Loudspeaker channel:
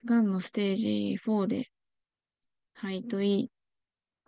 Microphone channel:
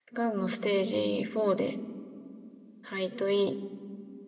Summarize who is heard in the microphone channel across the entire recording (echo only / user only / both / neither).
echo only